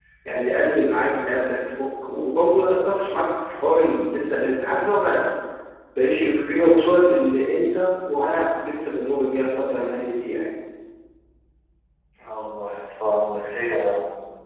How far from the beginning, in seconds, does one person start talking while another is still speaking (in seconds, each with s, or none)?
none